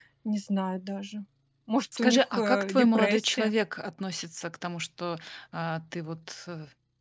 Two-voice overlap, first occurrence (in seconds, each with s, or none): 2.0 s